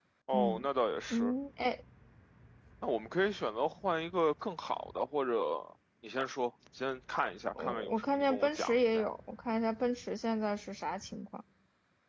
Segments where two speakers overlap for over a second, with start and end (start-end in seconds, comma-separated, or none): 7.6-9.1